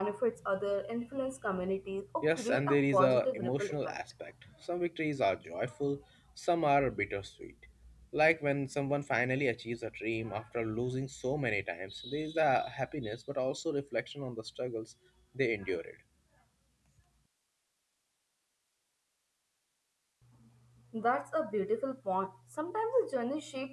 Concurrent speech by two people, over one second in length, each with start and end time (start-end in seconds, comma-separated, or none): 2.2-4.0